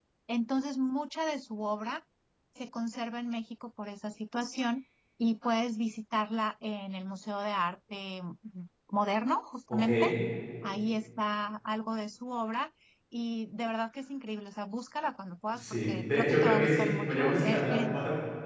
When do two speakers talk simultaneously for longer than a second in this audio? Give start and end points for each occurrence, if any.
15.5-17.8

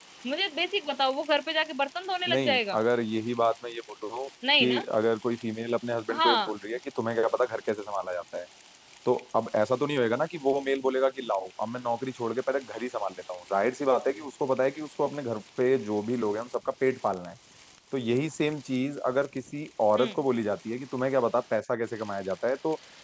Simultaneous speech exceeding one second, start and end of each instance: none

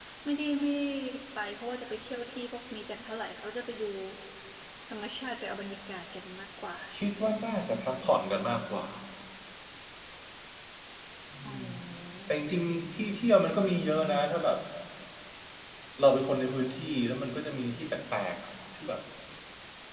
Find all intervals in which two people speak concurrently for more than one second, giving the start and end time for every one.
none

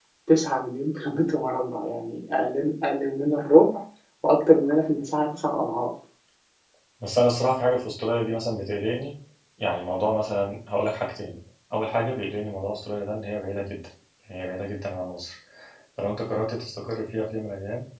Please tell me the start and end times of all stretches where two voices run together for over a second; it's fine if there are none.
none

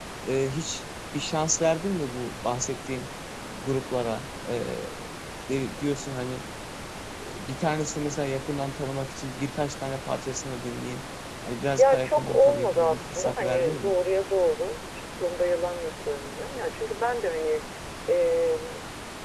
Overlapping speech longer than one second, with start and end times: 11.8-14.0

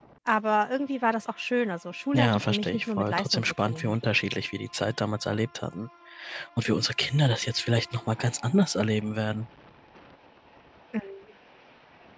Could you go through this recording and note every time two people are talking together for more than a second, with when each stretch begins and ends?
2.1-3.9

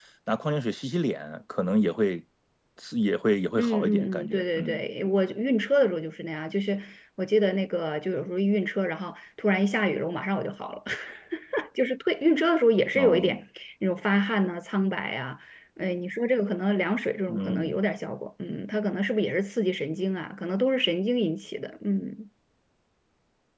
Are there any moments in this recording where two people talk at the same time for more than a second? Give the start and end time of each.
3.6-4.8

